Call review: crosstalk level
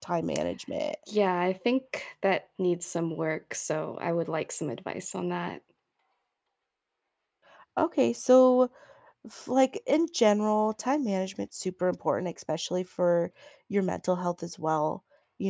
none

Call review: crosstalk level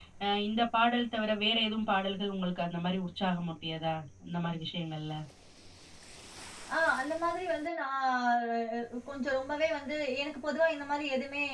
none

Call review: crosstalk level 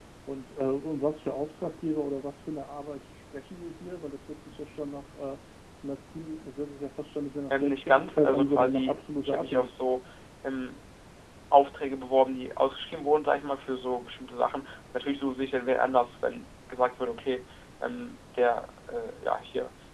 present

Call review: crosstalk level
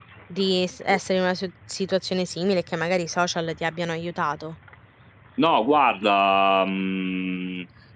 none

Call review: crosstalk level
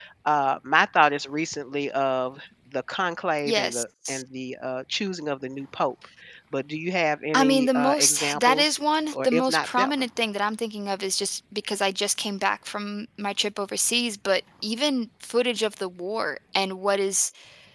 present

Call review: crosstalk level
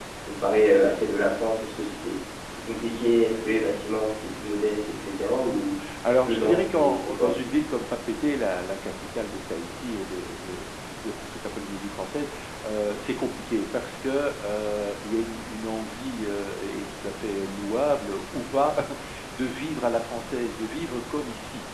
present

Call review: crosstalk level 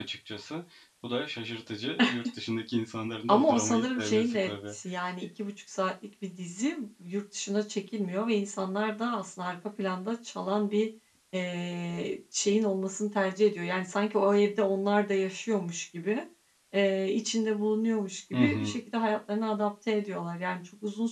present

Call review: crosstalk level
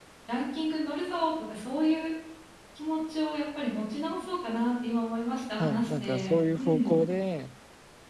present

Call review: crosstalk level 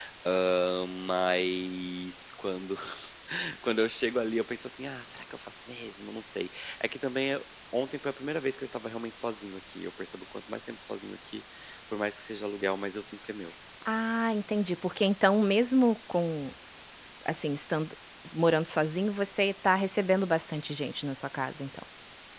none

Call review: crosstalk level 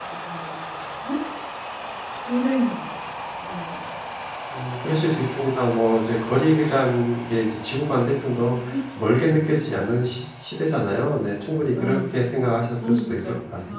present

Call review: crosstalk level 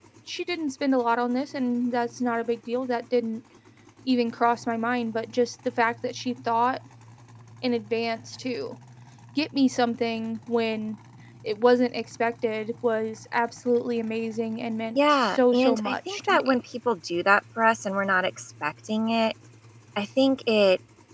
present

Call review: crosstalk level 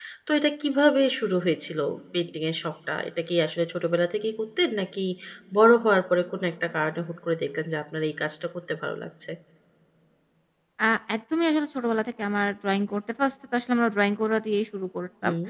none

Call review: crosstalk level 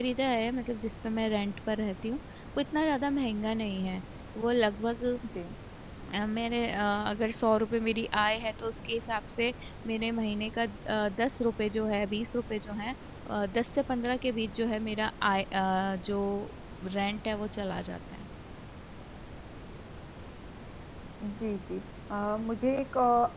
none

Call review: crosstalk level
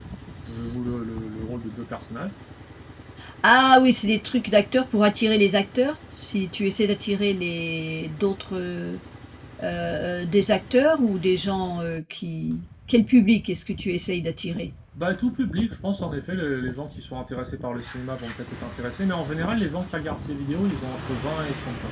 none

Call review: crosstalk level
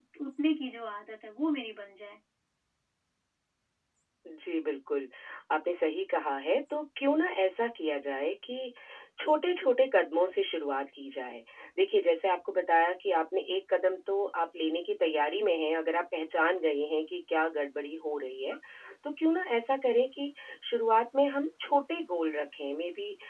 none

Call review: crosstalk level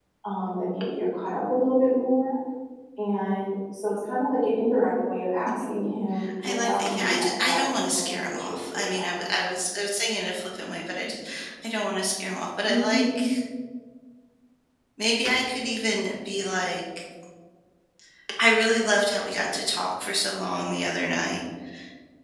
present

